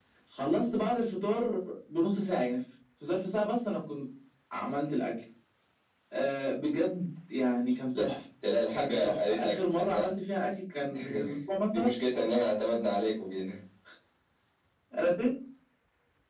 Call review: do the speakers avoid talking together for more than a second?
No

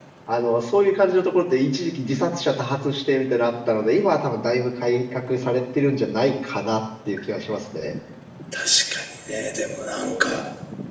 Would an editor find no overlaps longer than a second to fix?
Yes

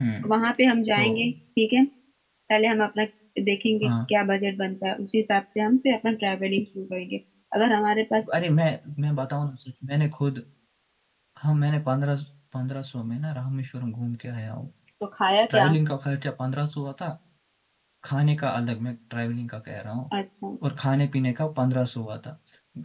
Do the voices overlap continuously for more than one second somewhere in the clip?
No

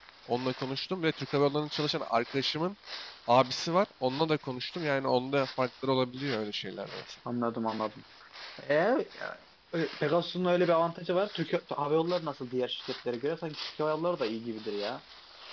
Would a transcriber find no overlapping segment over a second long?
Yes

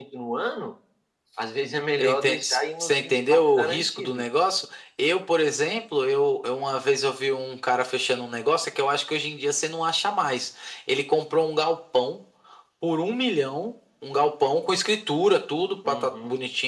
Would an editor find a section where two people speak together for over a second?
Yes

